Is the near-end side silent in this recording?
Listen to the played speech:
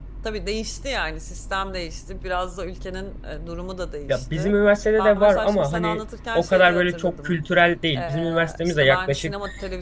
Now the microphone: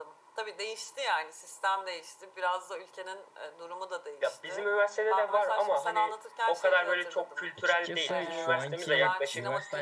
No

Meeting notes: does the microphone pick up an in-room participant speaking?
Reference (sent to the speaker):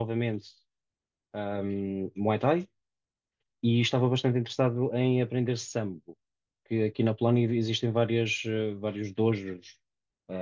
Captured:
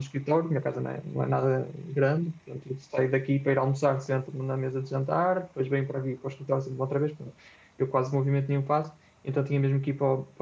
Yes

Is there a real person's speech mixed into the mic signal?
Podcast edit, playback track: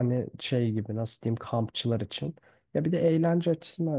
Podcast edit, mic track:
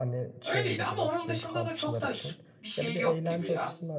Yes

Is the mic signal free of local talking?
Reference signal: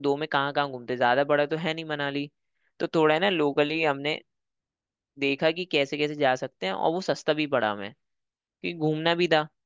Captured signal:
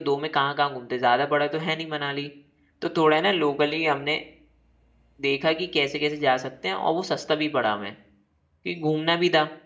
Yes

